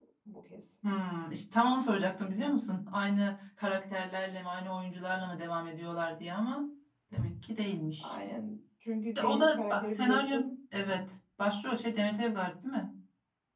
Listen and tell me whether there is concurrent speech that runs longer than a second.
Yes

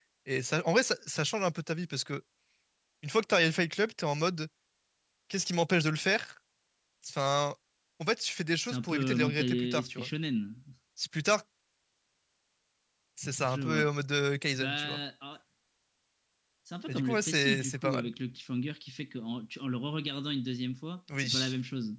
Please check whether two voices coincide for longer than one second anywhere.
Yes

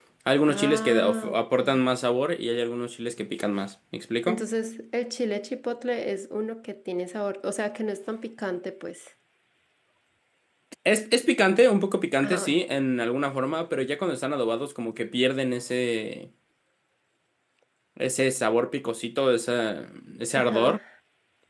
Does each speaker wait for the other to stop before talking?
No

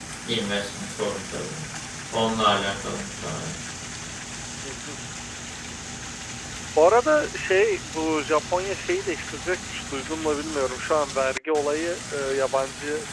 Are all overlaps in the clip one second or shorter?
Yes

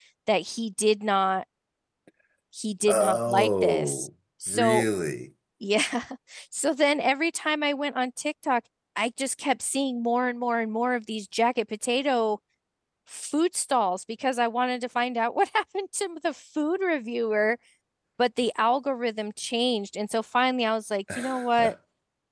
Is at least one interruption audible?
Yes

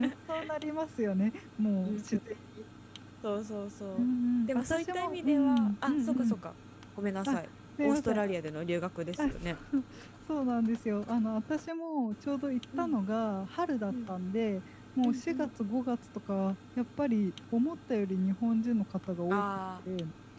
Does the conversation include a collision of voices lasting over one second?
Yes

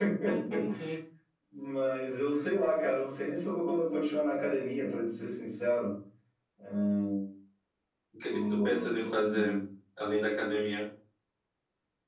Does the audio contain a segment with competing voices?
Yes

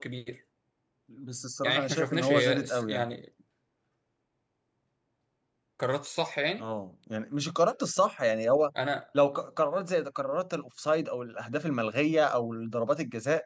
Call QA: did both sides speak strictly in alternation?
No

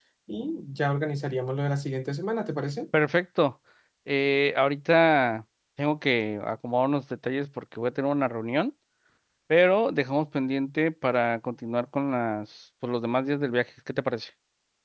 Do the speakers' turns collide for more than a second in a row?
No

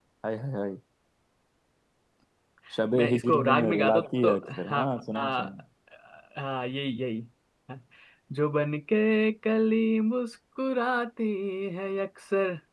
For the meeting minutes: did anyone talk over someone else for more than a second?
Yes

